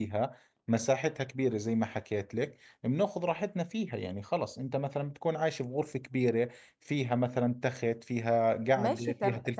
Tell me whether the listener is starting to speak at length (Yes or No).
Yes